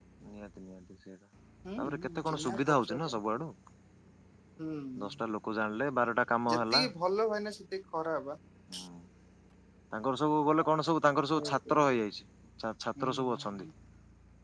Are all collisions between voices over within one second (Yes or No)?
No